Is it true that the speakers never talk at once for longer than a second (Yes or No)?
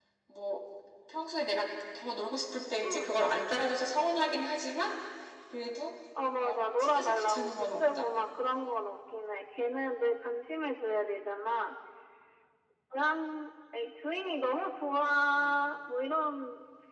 No